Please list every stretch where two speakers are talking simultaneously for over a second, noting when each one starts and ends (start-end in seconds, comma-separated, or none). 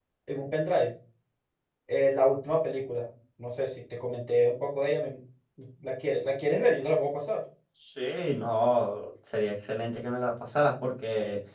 none